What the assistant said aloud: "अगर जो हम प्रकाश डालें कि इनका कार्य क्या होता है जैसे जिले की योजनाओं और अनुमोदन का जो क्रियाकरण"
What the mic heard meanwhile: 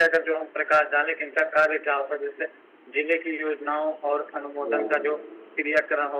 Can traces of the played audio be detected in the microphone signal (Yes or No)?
Yes